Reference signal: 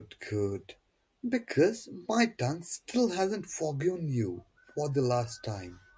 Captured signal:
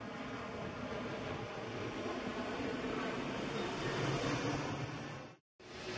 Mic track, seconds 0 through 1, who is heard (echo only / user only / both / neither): neither